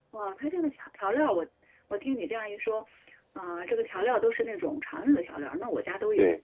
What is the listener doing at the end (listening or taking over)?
taking over